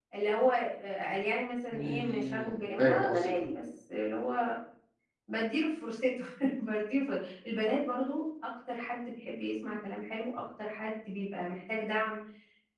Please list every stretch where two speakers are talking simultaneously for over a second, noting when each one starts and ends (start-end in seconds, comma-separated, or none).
1.7-3.5